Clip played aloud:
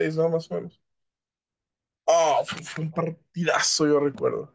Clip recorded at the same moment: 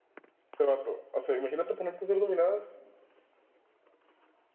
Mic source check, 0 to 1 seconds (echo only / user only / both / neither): user only